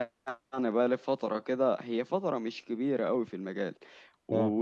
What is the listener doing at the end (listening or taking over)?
listening